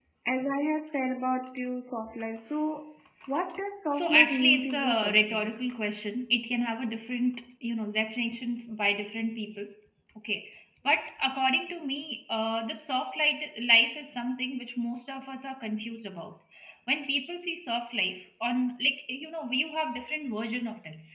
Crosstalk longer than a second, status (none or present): present